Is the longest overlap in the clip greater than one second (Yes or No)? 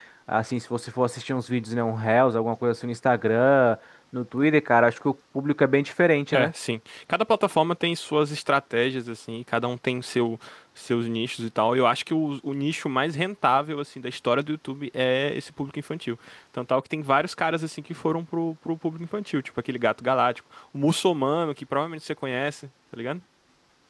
No